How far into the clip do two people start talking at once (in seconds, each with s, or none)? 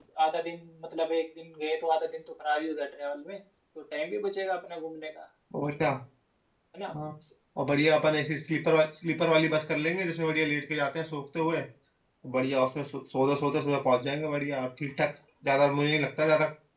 none